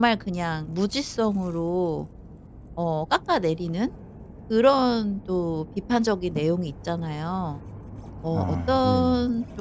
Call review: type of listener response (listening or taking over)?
listening